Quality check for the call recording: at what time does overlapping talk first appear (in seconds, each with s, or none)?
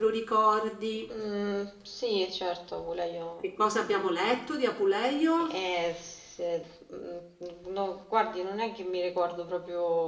none